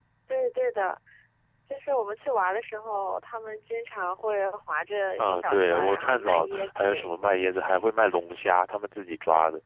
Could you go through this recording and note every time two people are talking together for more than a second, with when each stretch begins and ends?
5.2-7.3

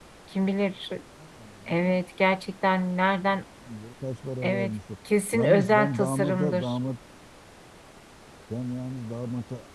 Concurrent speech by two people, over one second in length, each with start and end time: 5.3-6.8

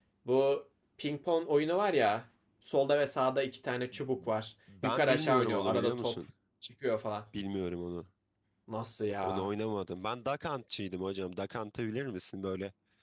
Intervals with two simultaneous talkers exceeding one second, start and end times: 4.8-6.2

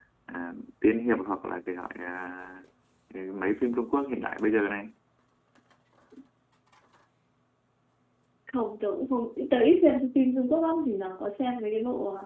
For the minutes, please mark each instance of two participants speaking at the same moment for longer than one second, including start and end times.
none

